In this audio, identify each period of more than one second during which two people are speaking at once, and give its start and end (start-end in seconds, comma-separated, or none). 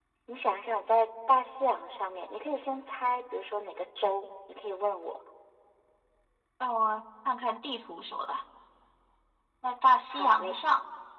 none